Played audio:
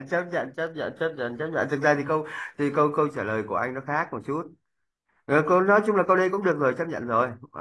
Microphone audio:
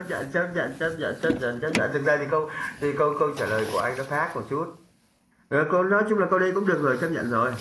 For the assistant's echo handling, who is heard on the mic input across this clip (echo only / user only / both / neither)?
echo only